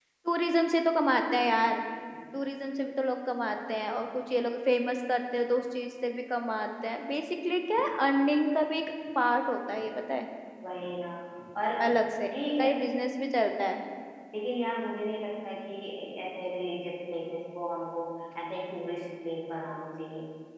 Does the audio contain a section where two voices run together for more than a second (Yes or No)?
No